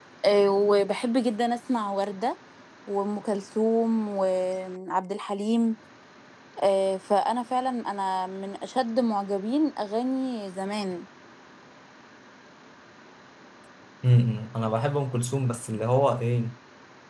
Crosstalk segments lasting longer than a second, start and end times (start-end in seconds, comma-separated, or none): none